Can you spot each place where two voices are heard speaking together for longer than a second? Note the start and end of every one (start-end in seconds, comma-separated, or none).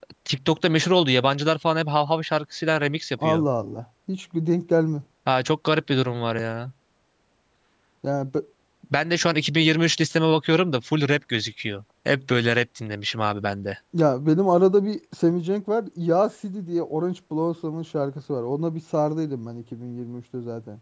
none